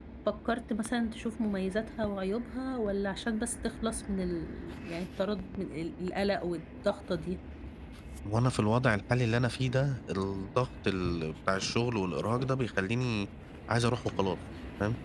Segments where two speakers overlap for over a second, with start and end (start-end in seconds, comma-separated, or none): none